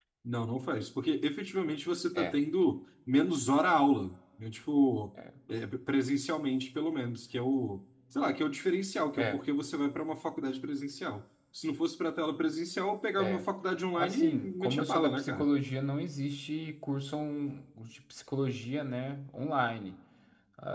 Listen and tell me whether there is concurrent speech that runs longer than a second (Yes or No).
Yes